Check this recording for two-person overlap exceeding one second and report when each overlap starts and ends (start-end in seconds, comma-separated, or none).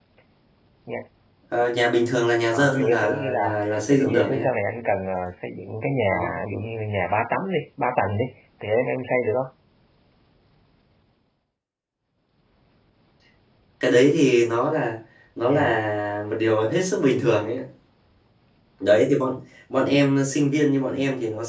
2.5-4.5